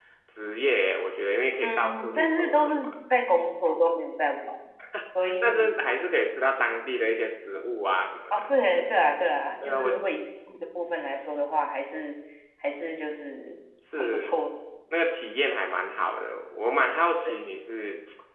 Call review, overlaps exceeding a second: present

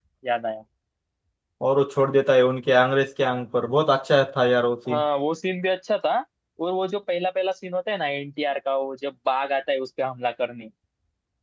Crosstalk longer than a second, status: none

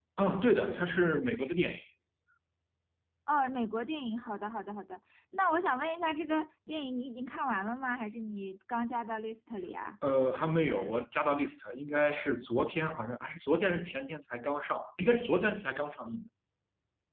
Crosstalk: none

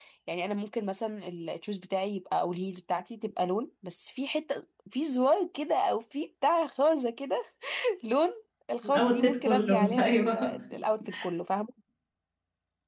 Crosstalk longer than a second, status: present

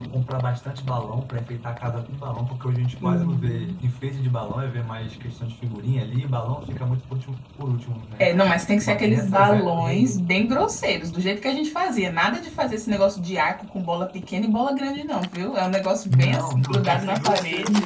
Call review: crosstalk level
present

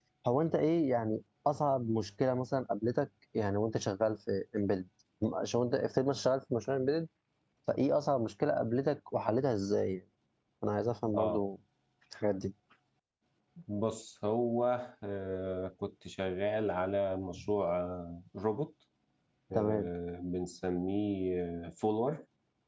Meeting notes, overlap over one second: none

